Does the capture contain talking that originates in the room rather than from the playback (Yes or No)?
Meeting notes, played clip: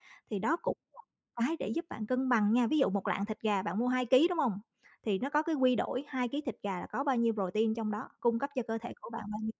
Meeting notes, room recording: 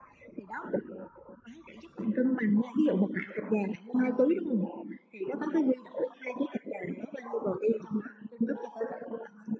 No